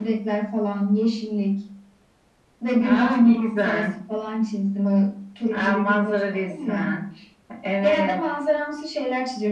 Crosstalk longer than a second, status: present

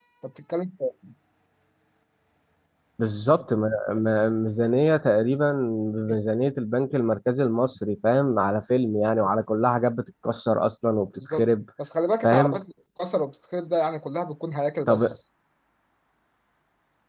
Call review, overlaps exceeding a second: none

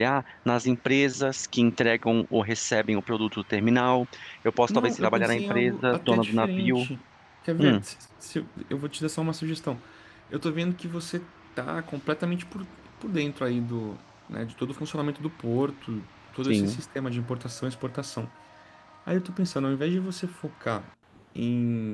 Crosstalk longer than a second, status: present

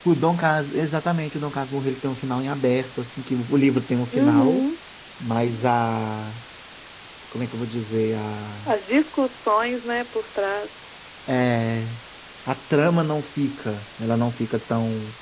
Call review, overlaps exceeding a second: none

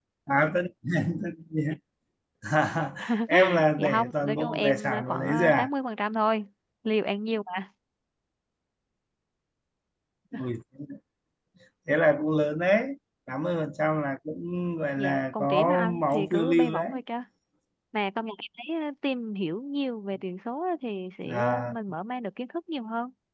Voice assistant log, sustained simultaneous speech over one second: present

